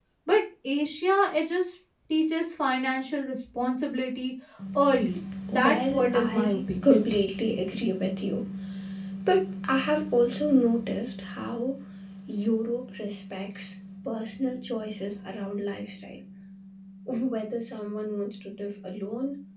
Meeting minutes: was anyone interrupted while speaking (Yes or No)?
Yes